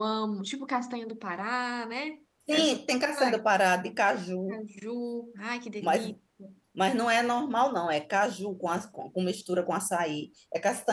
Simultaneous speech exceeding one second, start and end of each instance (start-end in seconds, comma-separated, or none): none